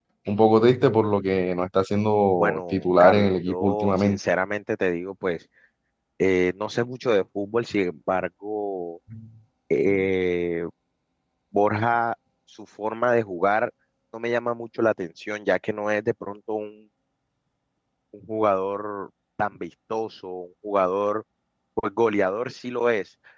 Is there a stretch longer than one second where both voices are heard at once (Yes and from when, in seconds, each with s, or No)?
Yes, from 2.4 s